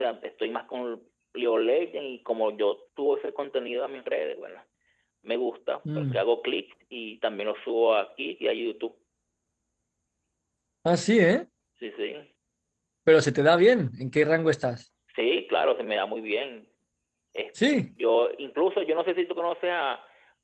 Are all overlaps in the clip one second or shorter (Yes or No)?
Yes